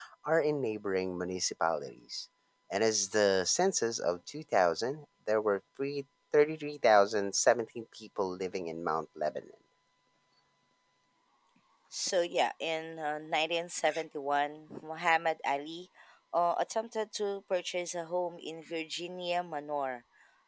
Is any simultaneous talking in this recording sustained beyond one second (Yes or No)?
No